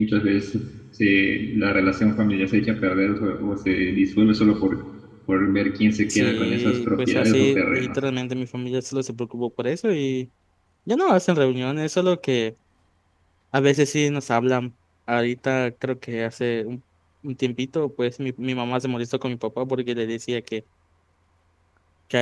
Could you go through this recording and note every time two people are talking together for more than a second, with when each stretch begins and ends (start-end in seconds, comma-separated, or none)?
6.1-8.0